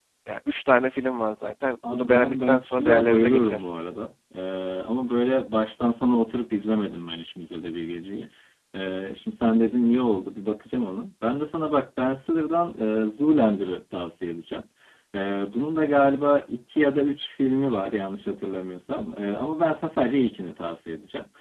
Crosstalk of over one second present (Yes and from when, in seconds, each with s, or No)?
Yes, from 1.8 s